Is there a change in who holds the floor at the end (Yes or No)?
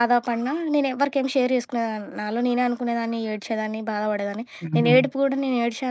No